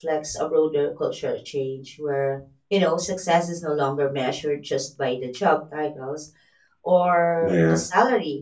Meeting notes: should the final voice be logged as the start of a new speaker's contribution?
No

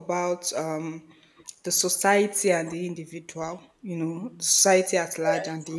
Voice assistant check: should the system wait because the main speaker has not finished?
Yes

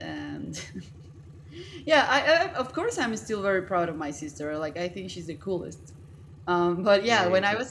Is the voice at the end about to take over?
No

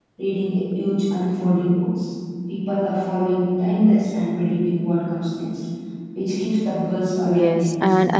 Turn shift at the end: Yes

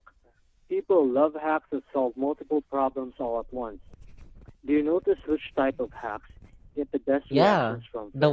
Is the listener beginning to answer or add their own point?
Yes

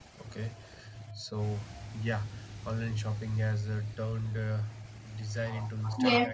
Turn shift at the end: Yes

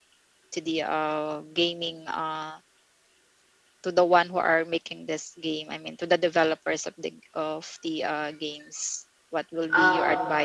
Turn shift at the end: No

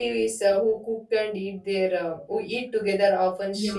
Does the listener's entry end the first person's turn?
Yes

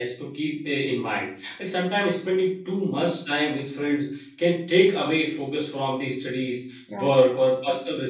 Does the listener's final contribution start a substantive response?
No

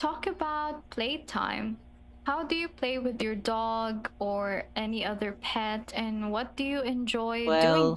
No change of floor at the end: No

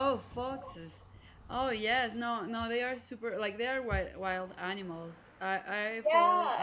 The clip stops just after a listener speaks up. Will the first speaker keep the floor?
No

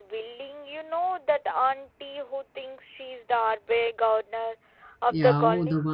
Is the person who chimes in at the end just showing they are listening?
No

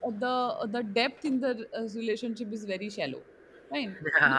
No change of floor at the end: No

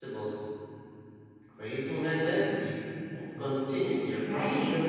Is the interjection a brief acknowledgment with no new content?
No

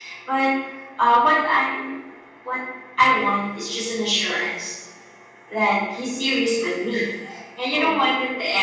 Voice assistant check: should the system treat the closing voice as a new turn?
No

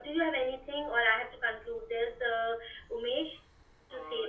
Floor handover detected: Yes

